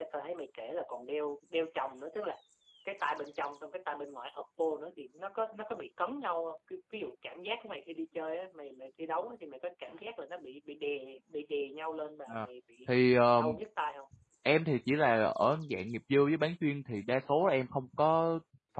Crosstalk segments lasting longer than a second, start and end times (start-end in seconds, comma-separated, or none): none